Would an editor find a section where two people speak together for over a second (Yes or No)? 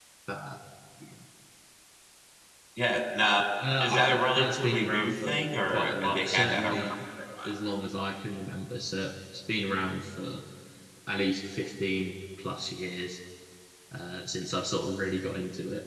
Yes